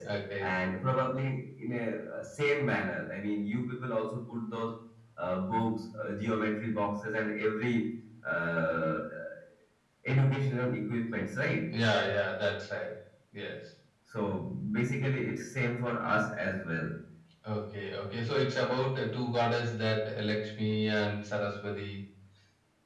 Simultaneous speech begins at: none

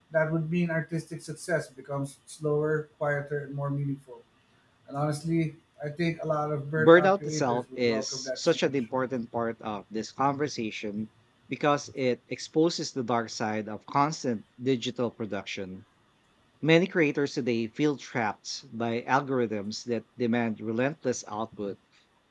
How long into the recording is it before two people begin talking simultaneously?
6.8 s

